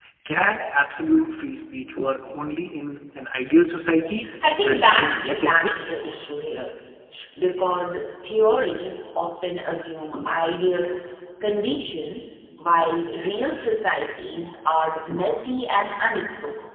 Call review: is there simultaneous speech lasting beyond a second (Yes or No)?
Yes